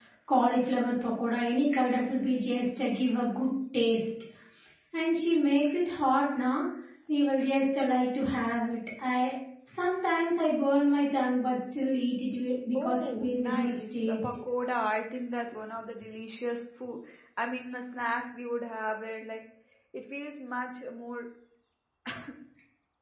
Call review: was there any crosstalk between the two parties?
Yes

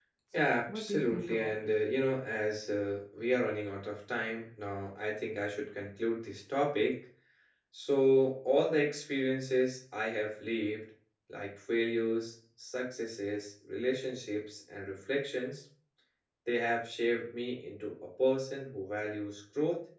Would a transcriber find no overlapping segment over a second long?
No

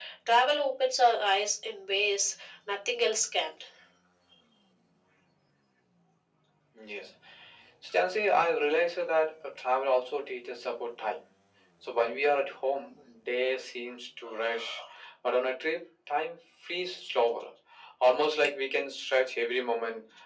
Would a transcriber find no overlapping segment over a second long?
Yes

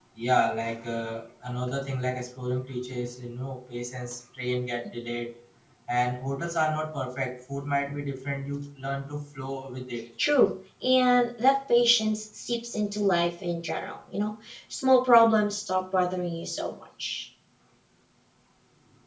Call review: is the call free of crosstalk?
Yes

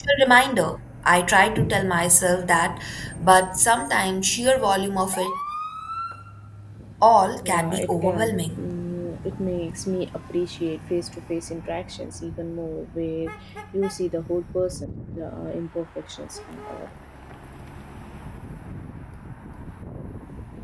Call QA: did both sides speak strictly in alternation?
No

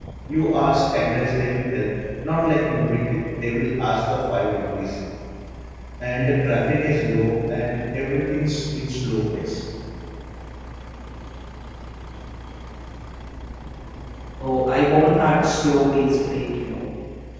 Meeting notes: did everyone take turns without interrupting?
Yes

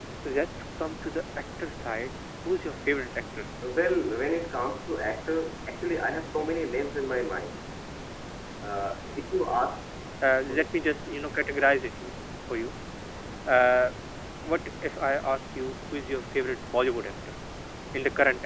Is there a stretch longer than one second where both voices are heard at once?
No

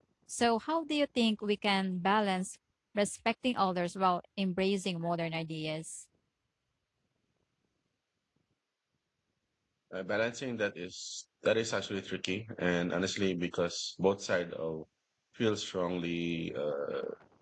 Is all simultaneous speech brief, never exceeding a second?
Yes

